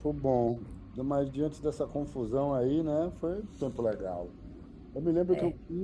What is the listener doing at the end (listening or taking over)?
listening